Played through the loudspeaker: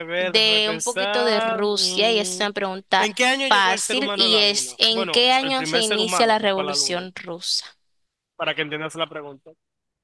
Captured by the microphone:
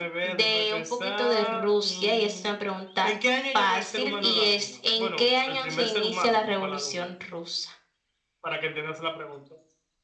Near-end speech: none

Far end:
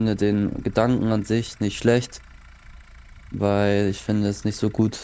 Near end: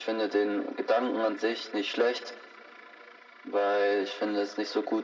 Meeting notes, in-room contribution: none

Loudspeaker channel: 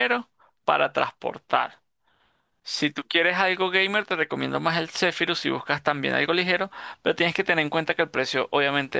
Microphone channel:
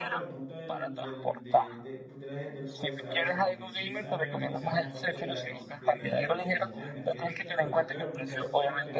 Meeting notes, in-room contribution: present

